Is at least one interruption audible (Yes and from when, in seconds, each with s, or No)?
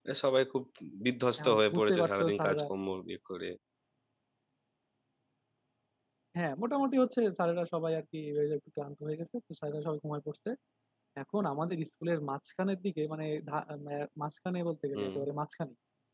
Yes, from 1.4 s